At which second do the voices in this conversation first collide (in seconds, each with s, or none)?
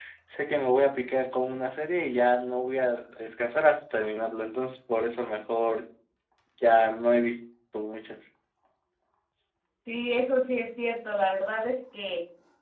none